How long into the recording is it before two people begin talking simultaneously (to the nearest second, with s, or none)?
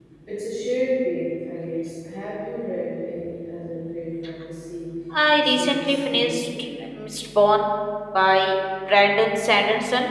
5 s